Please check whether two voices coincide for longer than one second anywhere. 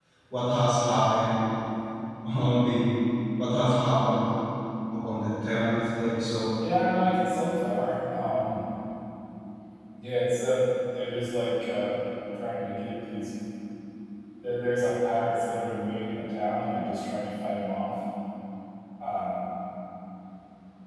No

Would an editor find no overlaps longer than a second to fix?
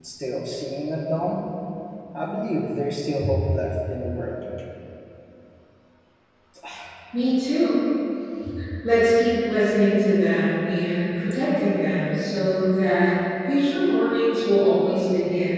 Yes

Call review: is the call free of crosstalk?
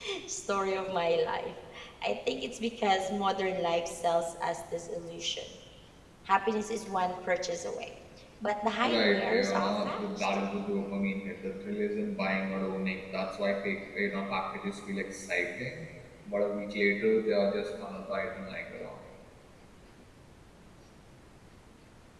No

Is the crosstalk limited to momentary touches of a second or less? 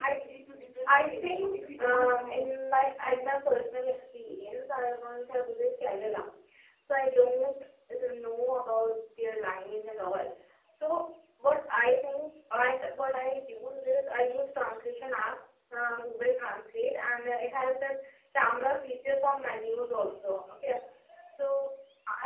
No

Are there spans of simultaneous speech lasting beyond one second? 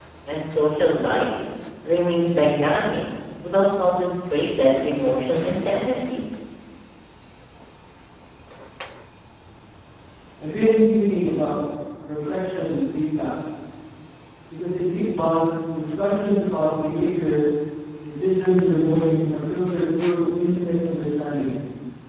No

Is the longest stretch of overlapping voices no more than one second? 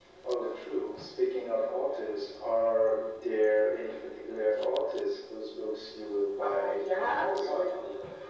No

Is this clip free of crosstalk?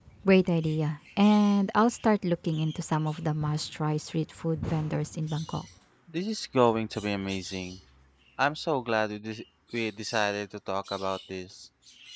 Yes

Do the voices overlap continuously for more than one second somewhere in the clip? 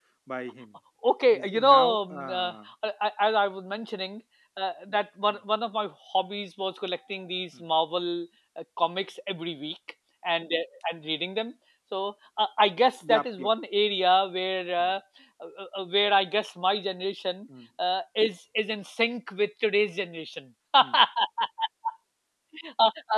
Yes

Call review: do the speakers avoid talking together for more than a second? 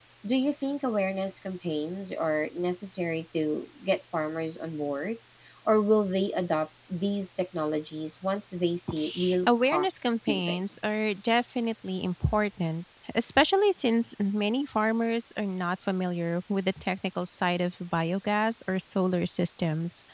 No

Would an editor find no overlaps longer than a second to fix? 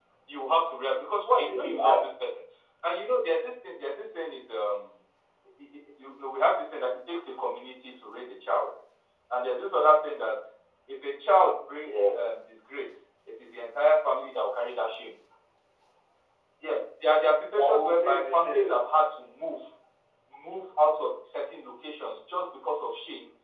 No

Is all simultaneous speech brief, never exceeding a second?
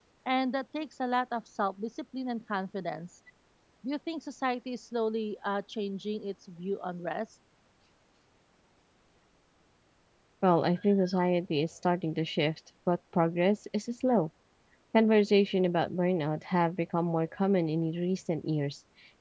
Yes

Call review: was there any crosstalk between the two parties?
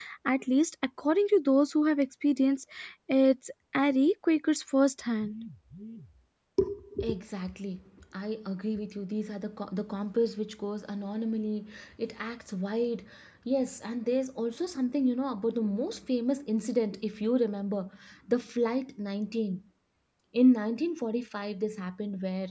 No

